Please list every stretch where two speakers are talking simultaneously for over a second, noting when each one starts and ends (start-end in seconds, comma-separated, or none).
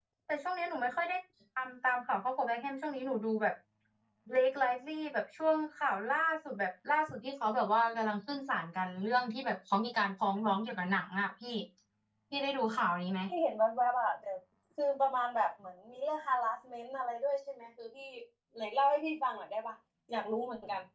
none